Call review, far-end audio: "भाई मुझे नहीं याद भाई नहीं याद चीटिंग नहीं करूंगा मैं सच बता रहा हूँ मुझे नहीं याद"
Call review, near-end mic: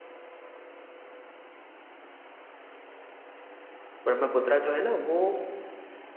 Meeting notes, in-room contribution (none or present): present